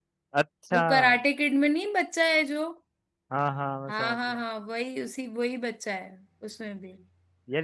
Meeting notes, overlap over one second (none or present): none